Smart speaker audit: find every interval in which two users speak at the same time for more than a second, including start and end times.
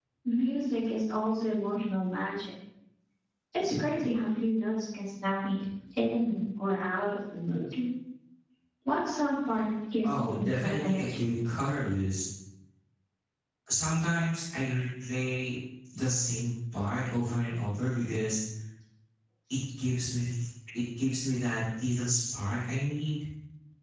10.0-11.3

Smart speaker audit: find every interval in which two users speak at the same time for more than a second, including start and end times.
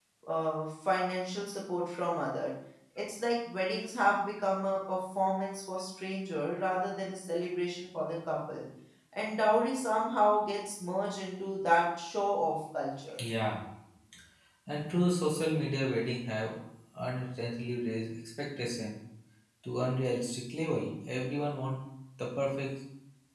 none

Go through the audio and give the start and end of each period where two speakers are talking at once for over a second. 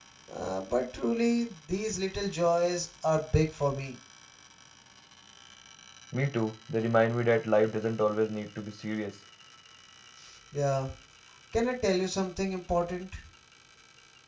none

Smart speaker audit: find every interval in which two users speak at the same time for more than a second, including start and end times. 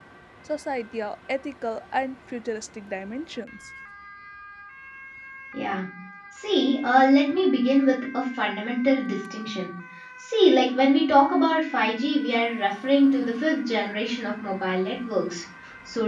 none

